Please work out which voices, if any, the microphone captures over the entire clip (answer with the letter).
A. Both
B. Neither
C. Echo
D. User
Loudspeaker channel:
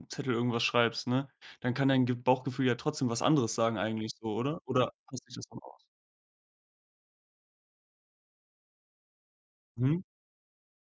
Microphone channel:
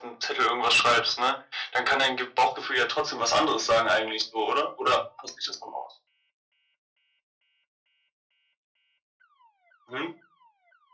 C